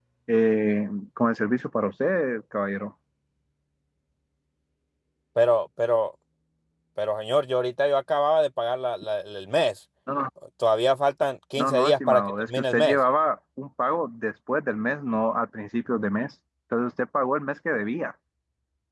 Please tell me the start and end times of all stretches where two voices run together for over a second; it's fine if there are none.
11.6-13.0

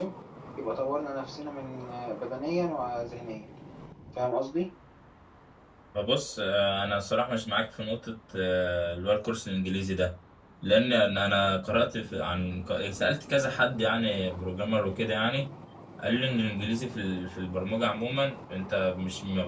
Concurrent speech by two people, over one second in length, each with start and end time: none

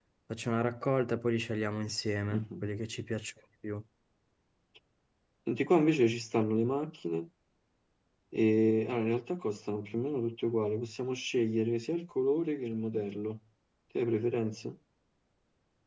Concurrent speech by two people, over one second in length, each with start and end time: none

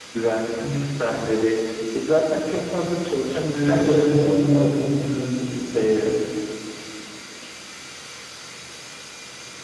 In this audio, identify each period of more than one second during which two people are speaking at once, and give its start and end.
3.5-4.8

